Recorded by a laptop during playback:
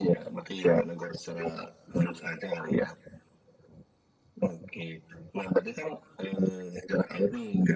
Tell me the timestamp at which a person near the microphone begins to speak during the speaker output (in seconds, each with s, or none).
none